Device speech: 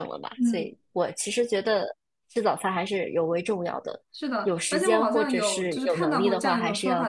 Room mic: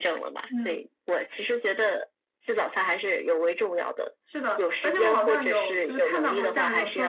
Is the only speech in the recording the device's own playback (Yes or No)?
Yes